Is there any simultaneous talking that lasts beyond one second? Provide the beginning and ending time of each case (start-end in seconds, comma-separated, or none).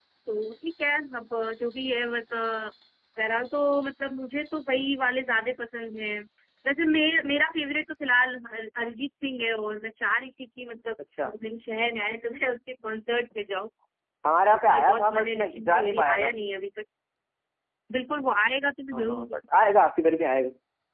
14.5-16.3